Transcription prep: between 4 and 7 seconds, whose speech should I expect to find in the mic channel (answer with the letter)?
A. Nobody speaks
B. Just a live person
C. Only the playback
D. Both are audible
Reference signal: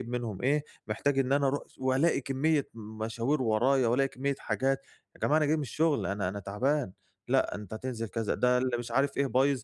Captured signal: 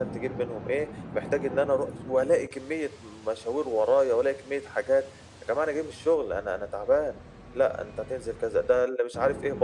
C